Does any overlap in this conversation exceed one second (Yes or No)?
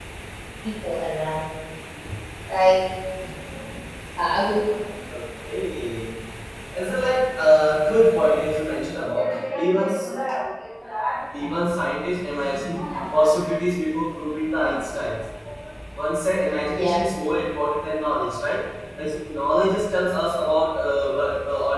No